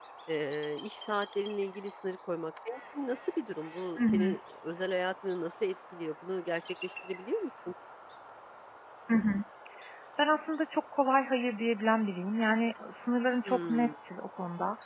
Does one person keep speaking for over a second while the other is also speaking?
No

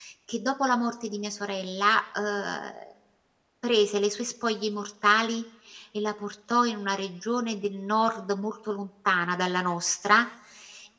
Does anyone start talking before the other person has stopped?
No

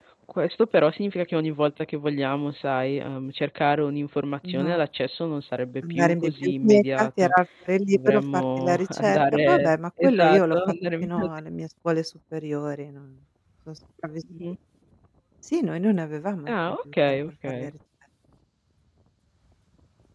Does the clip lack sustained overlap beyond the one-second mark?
No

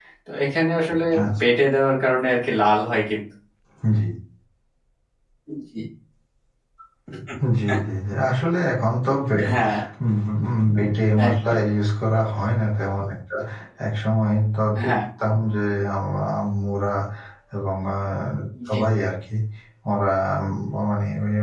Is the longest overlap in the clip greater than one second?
No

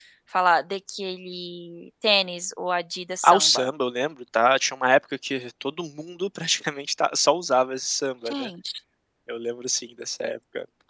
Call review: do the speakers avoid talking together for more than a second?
Yes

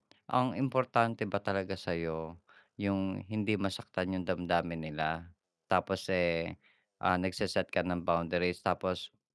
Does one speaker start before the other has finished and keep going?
No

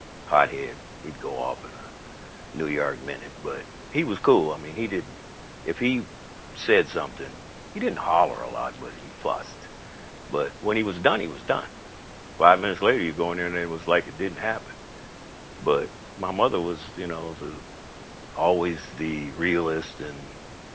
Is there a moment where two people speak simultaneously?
No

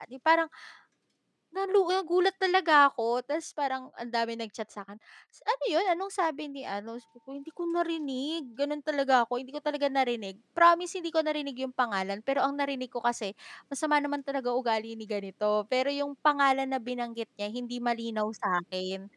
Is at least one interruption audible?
No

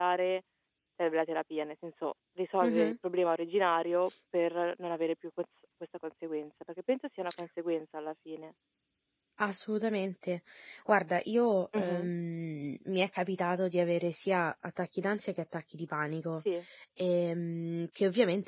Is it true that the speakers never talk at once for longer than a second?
Yes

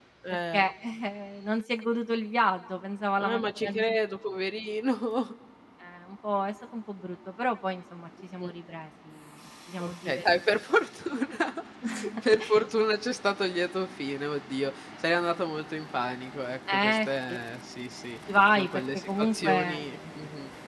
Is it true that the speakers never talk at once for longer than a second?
No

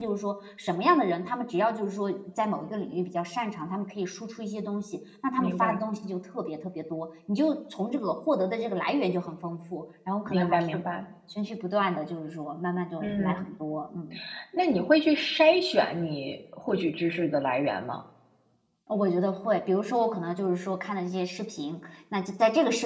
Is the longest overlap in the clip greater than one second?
No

